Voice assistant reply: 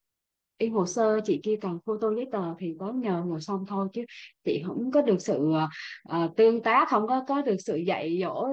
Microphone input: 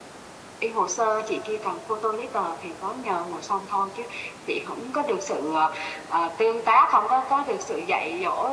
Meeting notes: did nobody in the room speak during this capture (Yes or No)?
Yes